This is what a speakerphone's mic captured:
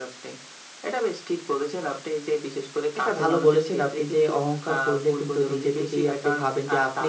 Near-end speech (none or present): present